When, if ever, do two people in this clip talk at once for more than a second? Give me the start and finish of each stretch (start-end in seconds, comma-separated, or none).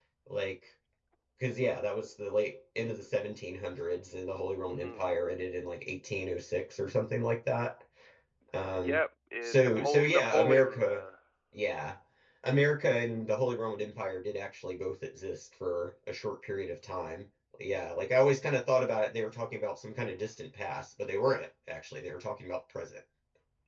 9.4-11.0